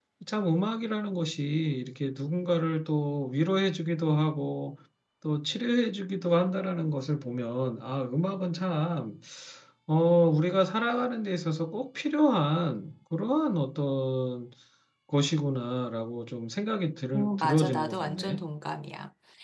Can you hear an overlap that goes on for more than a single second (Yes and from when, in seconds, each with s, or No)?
Yes, from 17.1 s